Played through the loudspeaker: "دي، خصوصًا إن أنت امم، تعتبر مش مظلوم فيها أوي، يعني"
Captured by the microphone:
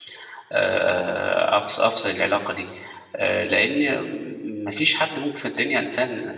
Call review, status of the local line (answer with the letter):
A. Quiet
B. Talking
B